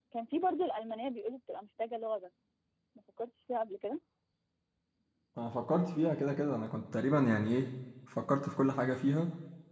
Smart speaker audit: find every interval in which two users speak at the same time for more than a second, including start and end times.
none

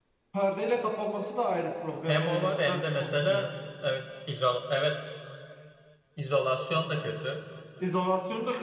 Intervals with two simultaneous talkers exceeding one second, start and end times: 2.1-3.5

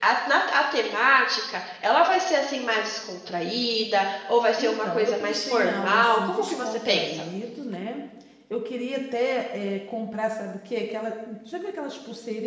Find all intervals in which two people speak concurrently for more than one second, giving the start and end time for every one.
4.6-7.2

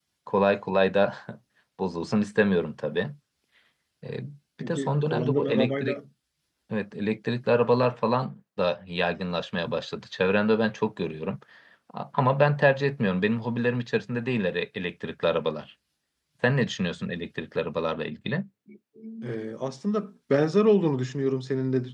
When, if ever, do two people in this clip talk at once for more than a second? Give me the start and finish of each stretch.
4.6-6.0

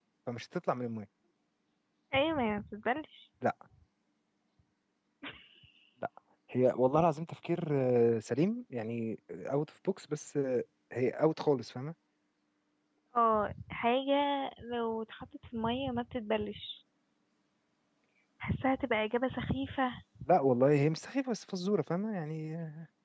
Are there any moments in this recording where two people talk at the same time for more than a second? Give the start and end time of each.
none

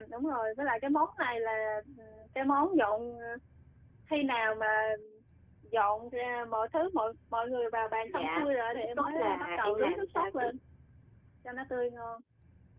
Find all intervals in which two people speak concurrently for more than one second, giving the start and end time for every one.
8.1-10.5

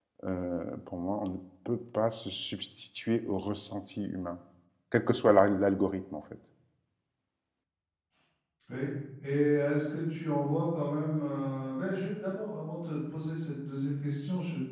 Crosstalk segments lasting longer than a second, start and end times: none

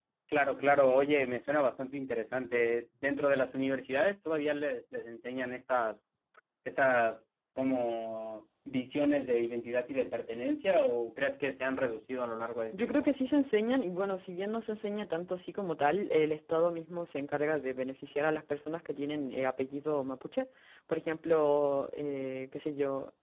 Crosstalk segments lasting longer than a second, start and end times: none

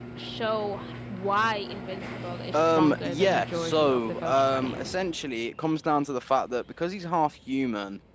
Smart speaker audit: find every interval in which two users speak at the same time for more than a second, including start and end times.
2.5-4.8

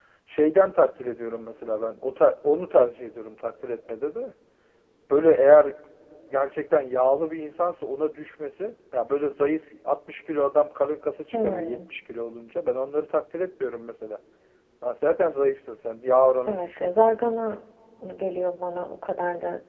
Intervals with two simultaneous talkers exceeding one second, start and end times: none

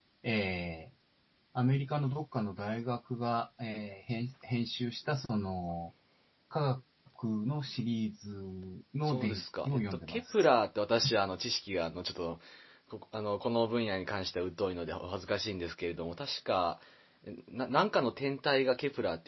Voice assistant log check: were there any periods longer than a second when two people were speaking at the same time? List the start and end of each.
9.1-10.5

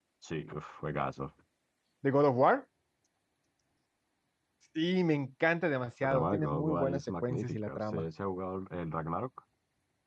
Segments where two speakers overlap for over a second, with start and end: 6.0-8.0

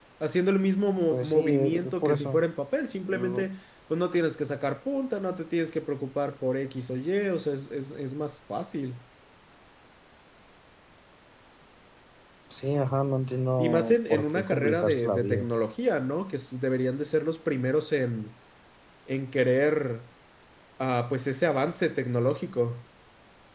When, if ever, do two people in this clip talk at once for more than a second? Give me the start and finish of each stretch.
1.1-2.4, 13.6-15.5

